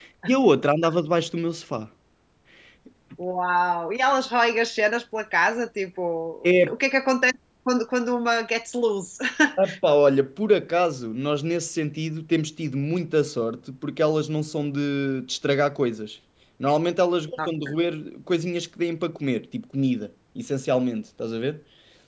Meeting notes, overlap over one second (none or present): none